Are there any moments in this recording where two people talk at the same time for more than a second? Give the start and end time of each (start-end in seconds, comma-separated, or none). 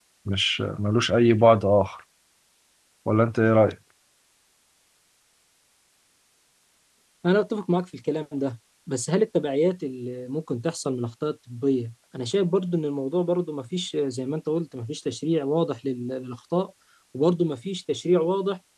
none